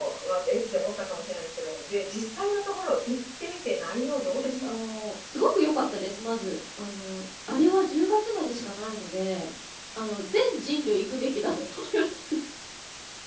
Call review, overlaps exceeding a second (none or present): none